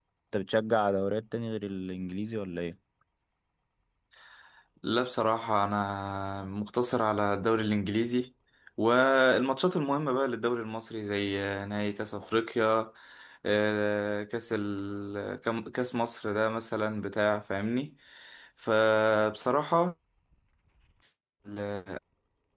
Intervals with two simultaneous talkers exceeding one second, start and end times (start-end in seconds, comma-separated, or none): none